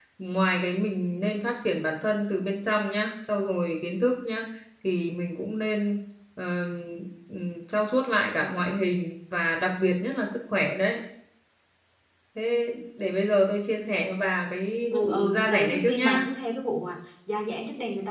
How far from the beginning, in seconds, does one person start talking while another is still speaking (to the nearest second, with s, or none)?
15 s